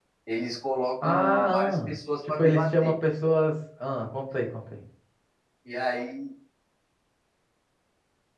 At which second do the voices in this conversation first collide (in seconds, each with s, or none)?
1.0 s